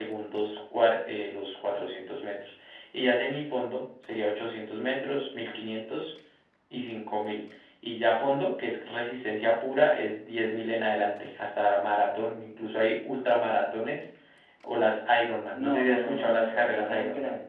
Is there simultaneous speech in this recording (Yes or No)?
Yes